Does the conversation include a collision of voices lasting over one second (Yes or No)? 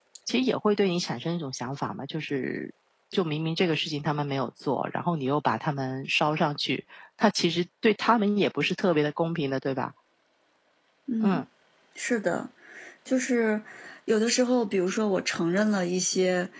No